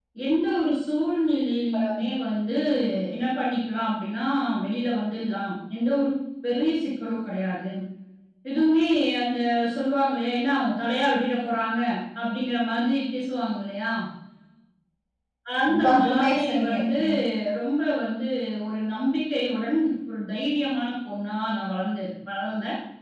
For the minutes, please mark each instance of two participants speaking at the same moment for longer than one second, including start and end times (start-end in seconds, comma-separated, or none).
15.7-17.0